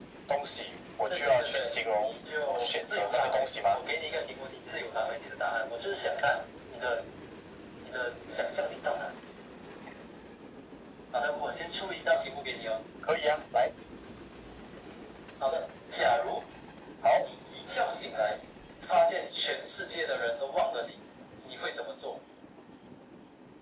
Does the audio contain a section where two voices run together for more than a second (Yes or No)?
Yes